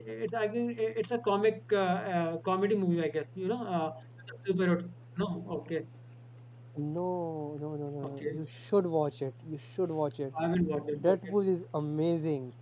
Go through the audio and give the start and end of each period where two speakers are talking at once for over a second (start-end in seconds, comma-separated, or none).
none